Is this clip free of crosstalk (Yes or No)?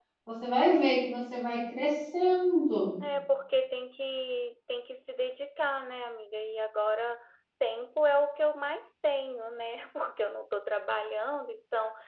Yes